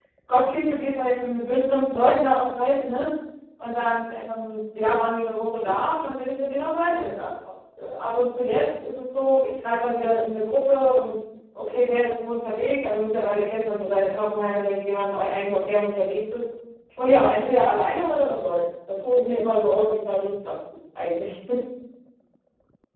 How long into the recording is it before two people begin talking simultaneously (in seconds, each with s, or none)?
none